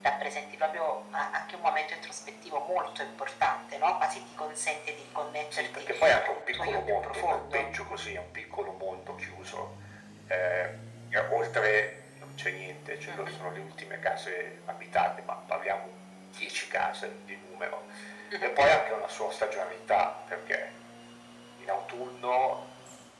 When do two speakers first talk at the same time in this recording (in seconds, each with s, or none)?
5.6 s